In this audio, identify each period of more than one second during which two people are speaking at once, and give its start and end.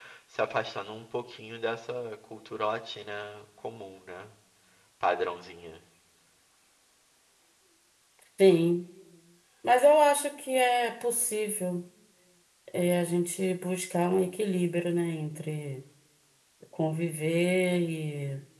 none

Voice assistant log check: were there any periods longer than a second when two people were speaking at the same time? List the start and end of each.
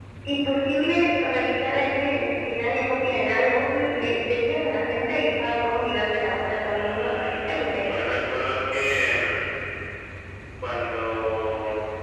6.7-8.3

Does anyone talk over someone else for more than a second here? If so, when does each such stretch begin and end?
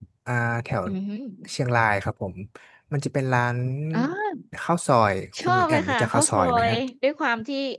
5.5-6.8

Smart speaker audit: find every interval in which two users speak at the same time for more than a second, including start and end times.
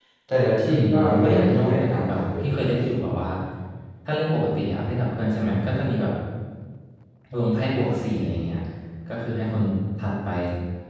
0.7-2.8

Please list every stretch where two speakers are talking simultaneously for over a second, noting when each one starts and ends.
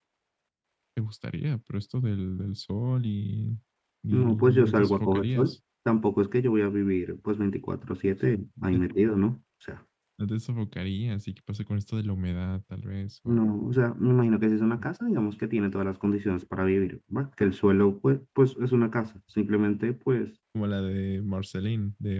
4.1-5.5

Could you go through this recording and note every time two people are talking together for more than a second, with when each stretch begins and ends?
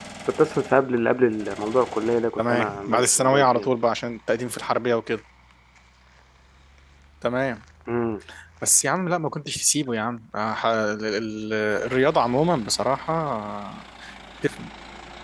2.4-3.7

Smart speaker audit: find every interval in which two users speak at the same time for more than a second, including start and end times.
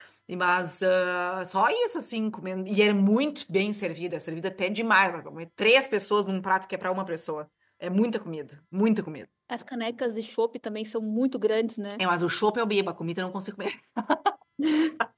none

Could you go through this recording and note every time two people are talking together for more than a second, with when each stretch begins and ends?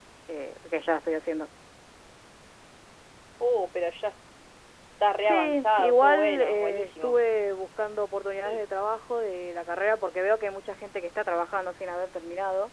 5.2-7.2

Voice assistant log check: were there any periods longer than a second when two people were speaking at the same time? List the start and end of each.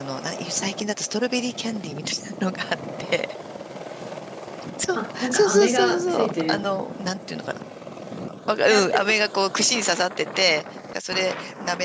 5.0-6.6

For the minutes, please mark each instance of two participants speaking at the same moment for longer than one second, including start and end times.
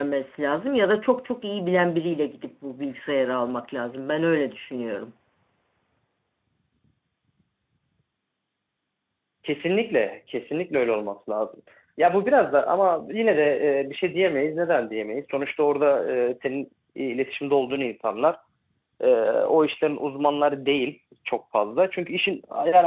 none

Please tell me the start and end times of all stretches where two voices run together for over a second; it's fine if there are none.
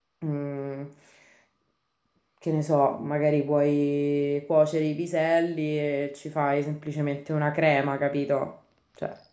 none

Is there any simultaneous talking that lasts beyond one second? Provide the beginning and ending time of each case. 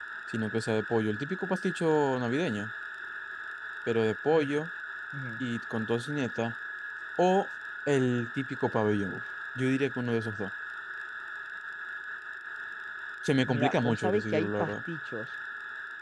13.5-14.7

